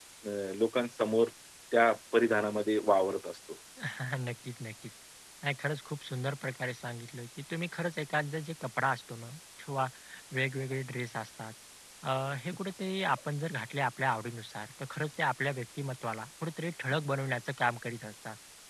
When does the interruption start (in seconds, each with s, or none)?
none